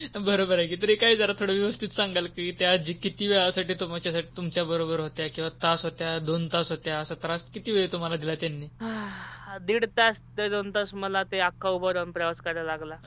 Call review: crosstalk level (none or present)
none